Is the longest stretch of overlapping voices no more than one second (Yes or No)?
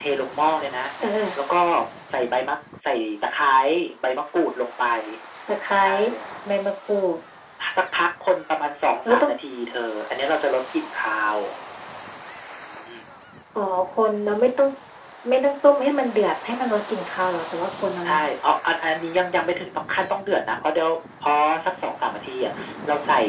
Yes